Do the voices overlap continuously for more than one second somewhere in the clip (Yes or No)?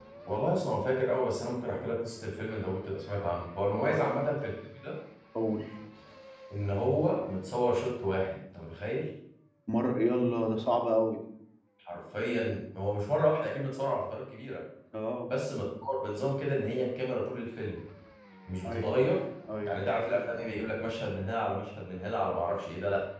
No